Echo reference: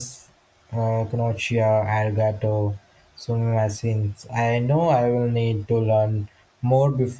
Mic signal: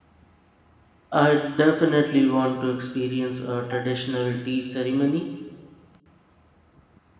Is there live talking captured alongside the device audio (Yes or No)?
Yes